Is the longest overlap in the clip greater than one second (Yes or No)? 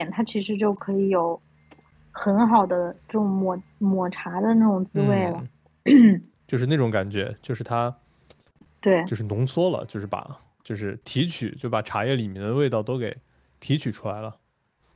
No